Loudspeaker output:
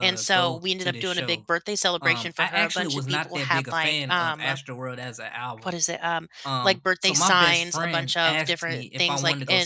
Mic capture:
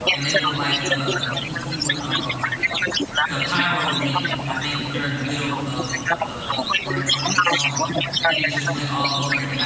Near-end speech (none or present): present